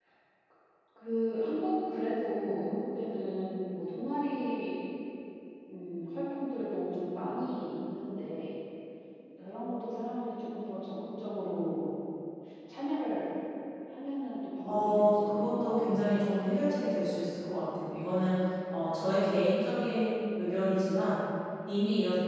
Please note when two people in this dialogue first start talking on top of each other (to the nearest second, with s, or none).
15 s